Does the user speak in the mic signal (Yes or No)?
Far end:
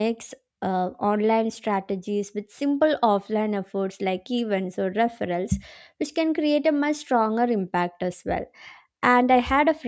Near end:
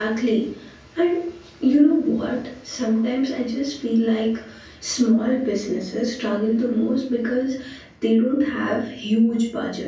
Yes